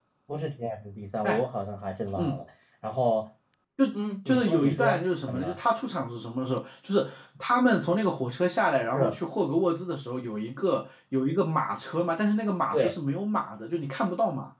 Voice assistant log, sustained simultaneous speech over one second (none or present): present